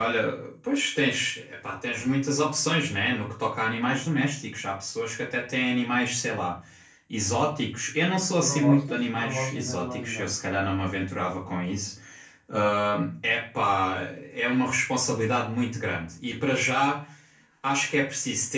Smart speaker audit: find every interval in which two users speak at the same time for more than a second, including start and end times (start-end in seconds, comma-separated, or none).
8.4-10.3